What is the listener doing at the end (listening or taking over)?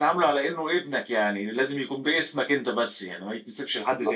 taking over